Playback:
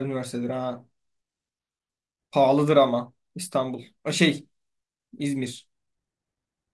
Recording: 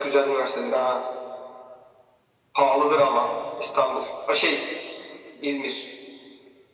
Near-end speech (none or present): none